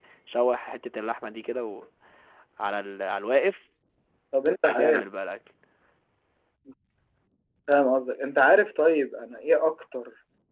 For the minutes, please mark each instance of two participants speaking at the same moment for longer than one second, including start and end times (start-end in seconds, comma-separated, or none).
none